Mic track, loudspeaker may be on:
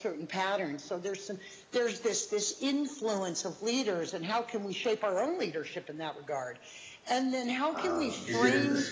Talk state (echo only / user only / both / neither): both